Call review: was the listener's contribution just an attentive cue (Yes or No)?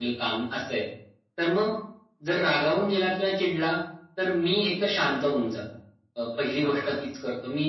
Yes